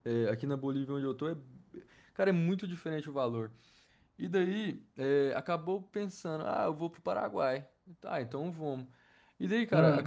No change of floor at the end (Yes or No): Yes